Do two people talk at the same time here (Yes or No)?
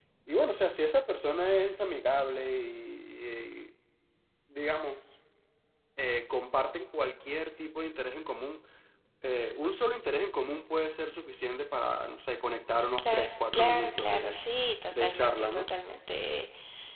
Yes